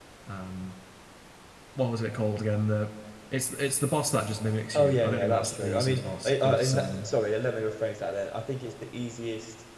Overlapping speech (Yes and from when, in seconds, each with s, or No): Yes, from 4.7 s